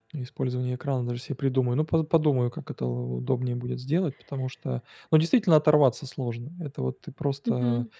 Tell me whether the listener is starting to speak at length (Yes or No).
No